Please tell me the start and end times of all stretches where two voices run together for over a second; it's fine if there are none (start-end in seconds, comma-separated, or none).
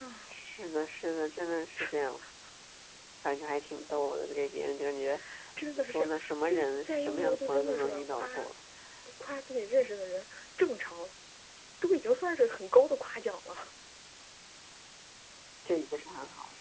5.6-8.3